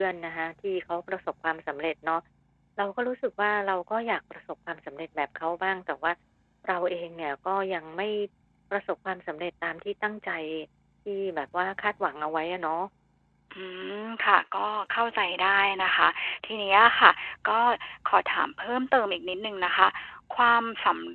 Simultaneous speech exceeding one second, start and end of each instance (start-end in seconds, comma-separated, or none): none